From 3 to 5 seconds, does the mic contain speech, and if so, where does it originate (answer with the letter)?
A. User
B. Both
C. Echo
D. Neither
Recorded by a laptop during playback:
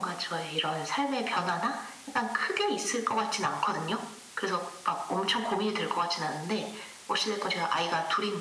C